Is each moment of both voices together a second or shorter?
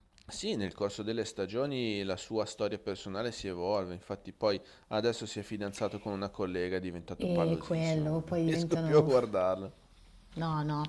No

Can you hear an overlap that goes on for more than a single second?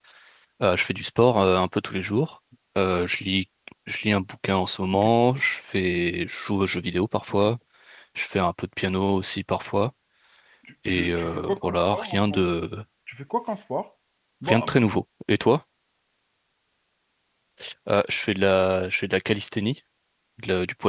Yes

